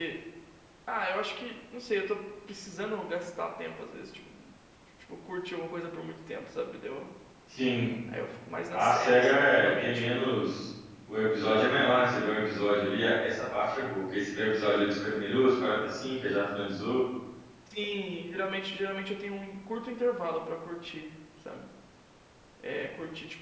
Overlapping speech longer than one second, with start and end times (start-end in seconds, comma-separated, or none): 8.7-10.1